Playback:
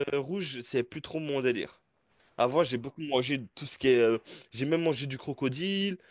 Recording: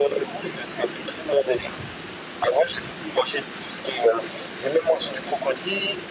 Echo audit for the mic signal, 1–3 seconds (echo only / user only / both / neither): echo only